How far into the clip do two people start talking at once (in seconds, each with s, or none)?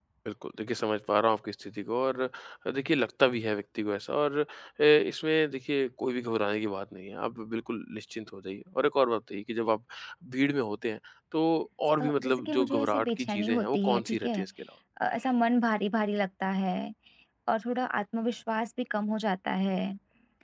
12.0 s